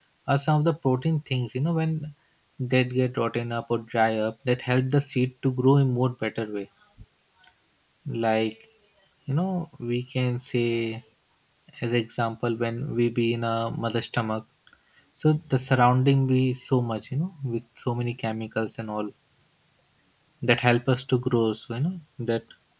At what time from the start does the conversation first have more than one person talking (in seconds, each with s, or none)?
none